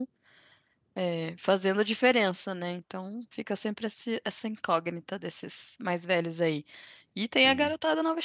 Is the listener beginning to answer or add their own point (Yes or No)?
No